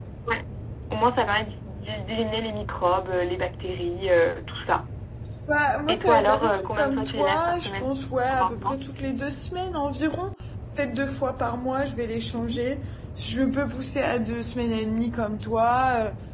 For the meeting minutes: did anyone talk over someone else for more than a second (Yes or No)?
Yes